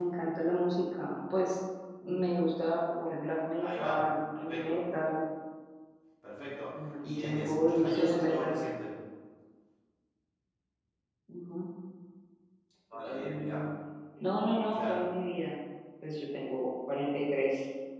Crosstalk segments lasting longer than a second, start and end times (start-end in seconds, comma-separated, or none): 7.0-8.6